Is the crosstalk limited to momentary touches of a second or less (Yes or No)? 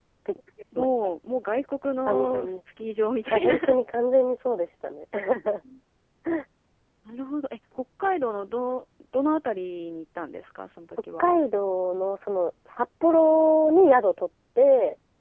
Yes